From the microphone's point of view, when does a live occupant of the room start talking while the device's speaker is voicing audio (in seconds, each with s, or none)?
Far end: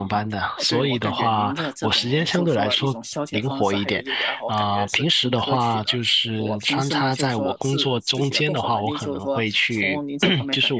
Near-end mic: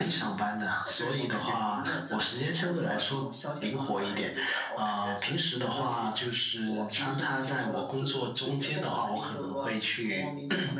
none